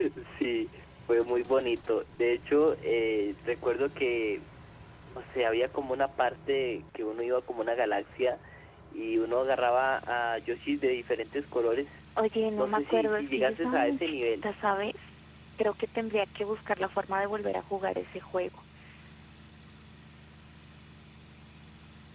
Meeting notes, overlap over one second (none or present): present